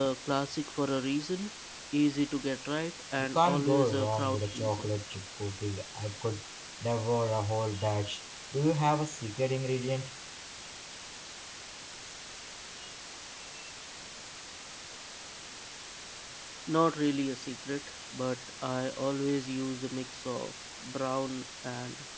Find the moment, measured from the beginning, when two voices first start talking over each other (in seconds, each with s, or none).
3.2 s